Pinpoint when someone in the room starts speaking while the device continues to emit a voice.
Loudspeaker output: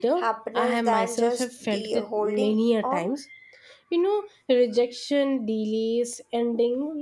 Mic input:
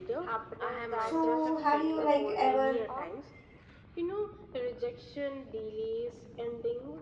0.9 s

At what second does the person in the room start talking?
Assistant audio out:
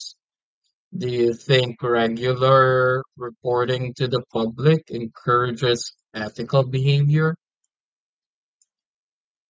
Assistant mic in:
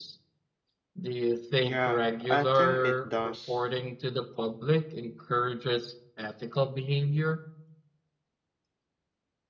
1.6 s

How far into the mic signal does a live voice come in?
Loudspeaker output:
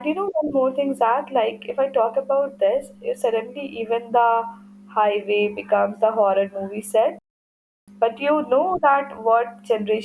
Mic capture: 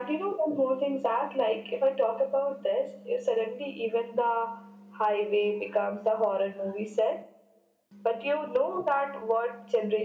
none

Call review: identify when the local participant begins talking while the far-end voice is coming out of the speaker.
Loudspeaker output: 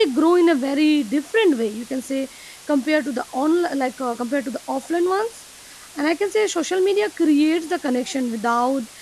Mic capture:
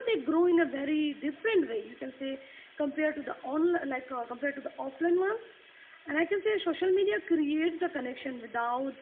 none

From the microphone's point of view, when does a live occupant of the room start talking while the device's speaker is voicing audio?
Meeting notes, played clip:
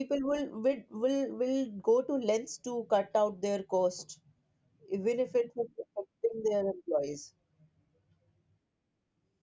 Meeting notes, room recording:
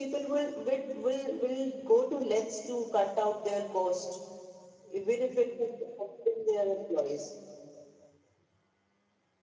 none

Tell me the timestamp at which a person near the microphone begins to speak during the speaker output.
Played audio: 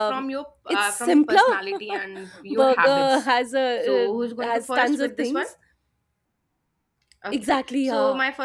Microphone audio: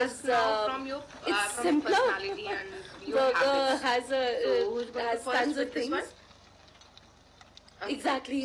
none

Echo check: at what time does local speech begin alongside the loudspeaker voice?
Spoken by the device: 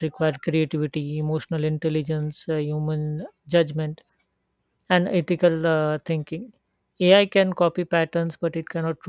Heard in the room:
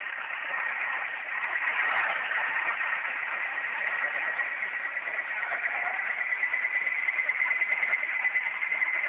none

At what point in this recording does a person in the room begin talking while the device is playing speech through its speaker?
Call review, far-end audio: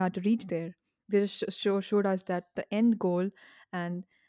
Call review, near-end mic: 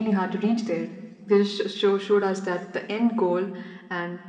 none

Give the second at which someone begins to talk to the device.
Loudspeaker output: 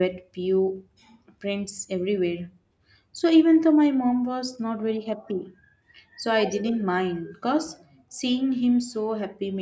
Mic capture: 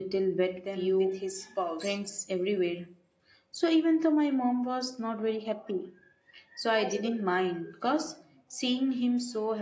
0.6 s

